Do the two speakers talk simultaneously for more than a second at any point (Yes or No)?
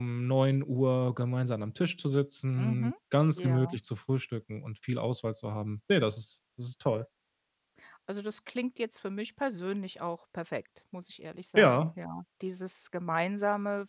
No